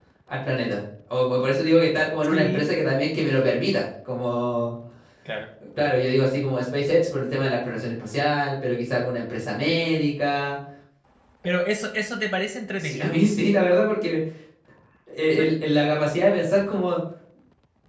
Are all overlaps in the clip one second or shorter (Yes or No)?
Yes